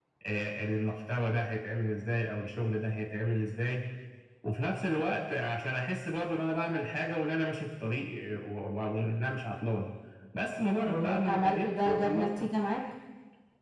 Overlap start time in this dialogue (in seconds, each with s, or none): 10.9 s